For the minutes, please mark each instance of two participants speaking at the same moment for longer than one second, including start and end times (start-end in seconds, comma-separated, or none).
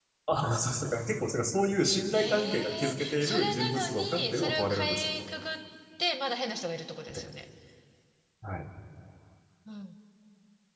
2.1-5.0